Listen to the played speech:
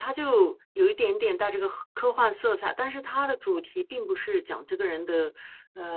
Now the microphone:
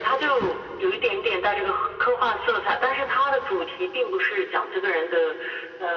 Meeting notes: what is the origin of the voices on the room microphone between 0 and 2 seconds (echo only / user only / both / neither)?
echo only